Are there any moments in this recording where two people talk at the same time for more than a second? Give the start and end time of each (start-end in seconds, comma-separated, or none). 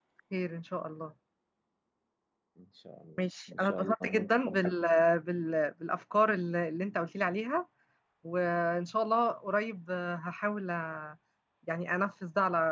3.2-4.8